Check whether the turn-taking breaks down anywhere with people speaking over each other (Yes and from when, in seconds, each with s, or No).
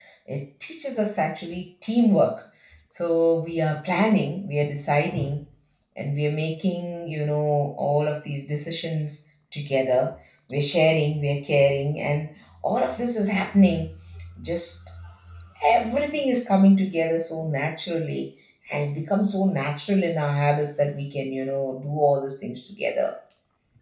No